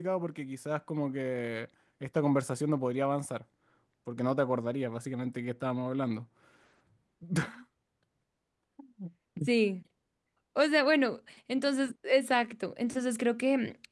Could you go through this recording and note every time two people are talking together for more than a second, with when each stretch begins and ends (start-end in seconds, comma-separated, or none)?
none